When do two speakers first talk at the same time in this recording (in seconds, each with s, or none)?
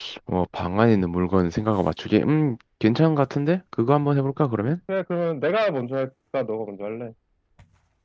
none